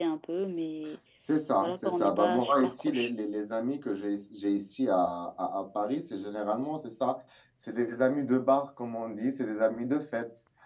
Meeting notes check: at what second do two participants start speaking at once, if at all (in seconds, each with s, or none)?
1.6 s